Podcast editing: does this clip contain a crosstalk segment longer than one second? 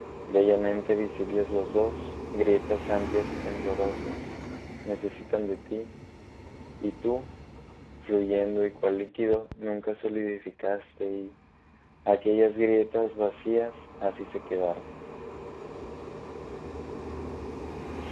No

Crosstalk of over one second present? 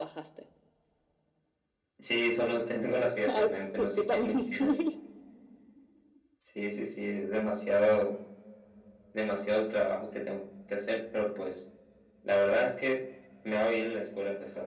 Yes, from 3.3 s

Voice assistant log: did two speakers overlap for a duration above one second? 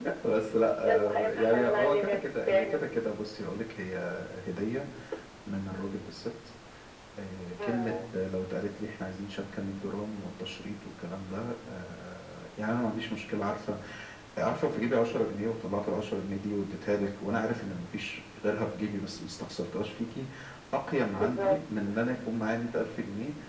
Yes, from 0.8 s

